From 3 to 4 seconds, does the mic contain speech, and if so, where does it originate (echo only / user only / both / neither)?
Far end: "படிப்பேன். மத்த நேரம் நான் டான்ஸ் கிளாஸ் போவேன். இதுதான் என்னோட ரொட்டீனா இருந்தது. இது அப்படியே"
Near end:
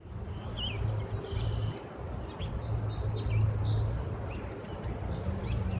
neither